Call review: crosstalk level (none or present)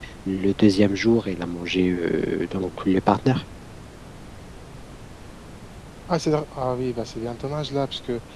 none